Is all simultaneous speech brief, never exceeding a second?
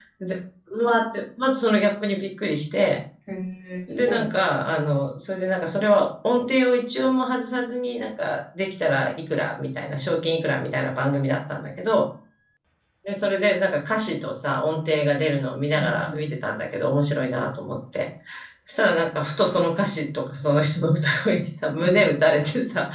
Yes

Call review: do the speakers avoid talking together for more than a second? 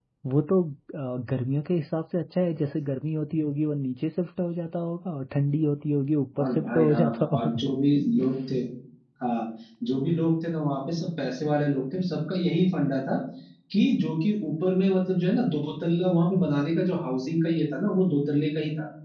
No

